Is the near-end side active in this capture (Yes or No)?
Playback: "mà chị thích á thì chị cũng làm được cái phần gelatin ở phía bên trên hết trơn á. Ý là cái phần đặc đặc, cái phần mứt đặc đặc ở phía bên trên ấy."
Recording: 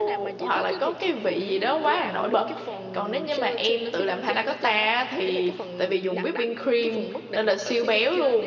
Yes